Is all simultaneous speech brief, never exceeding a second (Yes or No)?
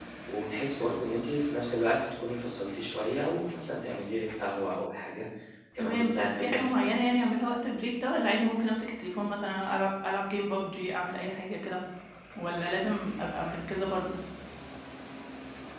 No